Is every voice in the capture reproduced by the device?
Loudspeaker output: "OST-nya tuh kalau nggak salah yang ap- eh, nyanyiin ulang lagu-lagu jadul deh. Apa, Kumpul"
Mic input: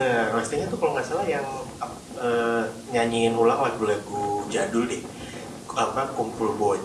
Yes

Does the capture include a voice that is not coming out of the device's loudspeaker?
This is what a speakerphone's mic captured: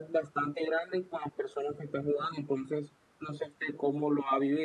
No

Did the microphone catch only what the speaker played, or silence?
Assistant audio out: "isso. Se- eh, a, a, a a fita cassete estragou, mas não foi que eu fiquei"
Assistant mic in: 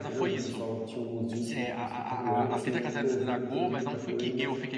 No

